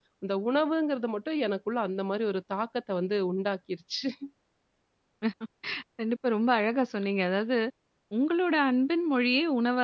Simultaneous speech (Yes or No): No